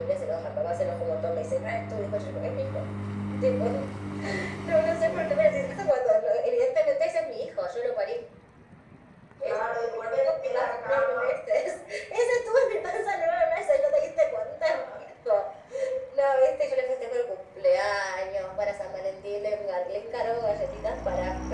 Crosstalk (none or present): present